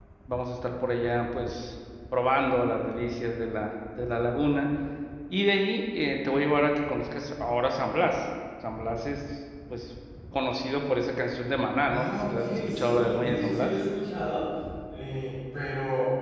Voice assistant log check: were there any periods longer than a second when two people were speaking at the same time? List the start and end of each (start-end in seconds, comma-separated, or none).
11.9-13.7